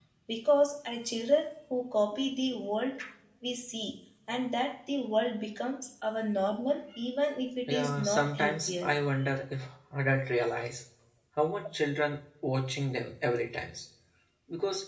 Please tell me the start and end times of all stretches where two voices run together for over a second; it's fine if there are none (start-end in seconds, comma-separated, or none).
7.7-8.9